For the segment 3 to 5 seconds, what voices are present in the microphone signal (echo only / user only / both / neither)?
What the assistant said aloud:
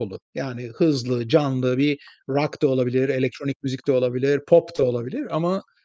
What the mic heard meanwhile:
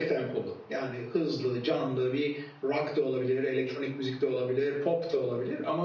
echo only